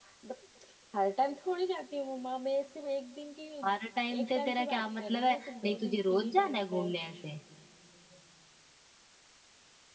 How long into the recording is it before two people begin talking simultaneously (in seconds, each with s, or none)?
4.2 s